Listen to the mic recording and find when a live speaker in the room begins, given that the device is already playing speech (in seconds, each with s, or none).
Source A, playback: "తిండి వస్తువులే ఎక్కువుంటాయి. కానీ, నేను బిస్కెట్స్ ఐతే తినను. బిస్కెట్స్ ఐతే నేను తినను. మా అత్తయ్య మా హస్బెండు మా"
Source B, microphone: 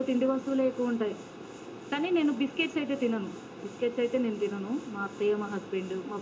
none